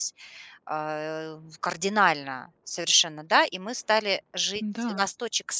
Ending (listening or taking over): listening